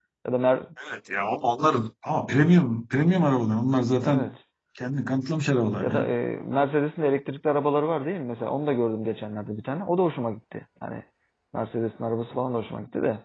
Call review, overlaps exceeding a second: none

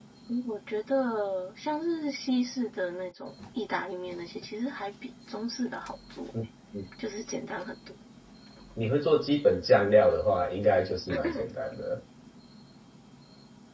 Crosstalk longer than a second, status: none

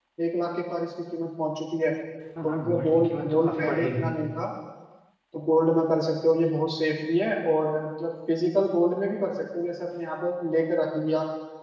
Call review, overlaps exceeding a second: present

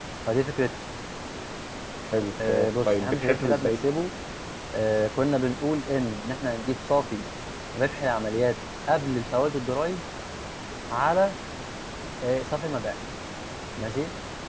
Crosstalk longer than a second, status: present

